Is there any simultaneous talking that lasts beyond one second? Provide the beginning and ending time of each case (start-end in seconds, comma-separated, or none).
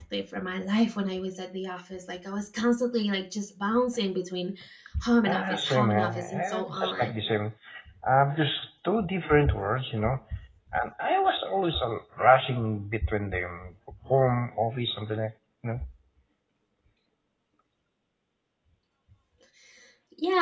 5.2-7.1